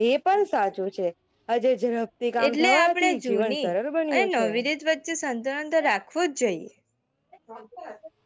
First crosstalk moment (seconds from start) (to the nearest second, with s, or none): 2 s